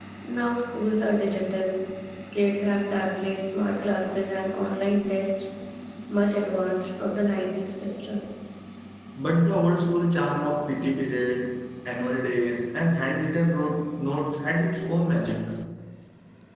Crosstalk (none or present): none